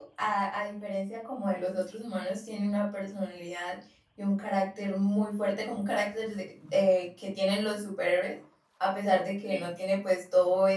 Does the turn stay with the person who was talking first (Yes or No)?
Yes